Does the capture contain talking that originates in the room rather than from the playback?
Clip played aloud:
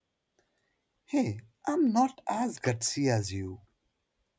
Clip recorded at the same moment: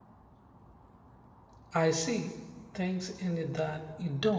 Yes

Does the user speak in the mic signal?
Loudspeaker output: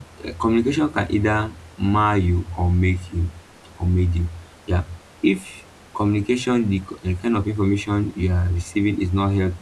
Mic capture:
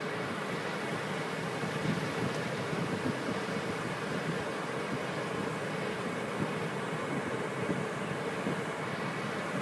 No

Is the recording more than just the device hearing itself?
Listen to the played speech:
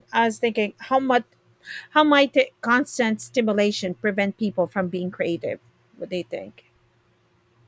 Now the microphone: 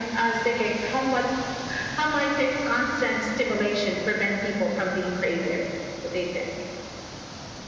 No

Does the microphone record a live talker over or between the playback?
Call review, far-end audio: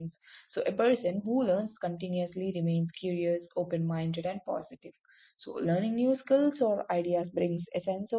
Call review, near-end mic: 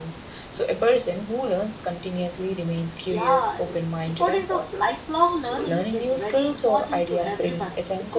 Yes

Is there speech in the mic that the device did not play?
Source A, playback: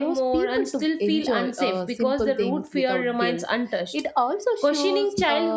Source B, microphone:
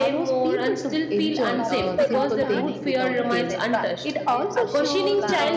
Yes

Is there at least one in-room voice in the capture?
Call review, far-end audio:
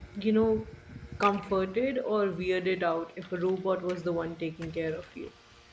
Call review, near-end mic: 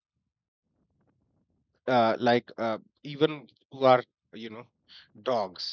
Yes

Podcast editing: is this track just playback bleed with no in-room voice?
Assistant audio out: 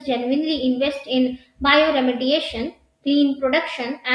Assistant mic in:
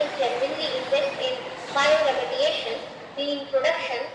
Yes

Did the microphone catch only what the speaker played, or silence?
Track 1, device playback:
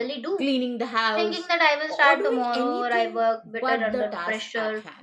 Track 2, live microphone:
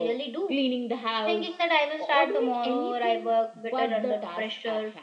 Yes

